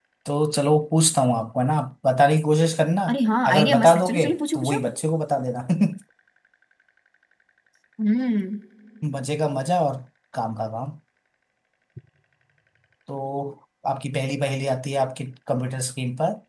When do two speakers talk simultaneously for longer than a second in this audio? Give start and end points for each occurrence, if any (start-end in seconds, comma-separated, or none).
3.5-4.8